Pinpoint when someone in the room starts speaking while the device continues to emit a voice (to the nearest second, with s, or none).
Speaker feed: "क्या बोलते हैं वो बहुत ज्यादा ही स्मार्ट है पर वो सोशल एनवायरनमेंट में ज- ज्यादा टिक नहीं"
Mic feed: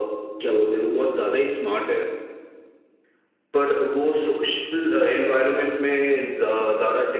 none